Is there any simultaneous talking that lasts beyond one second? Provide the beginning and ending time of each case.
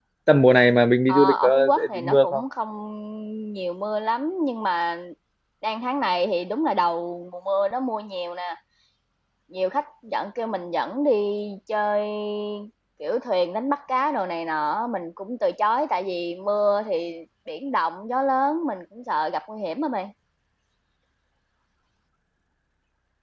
1.1-2.4

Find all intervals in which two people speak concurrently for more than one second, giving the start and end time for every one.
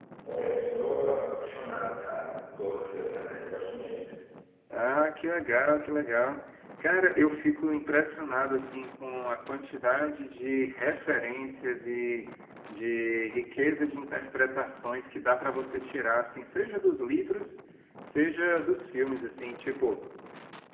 none

